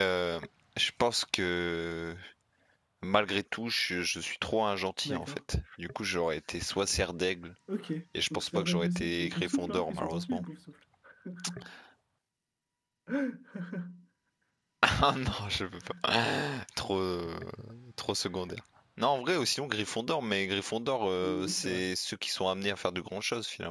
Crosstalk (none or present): present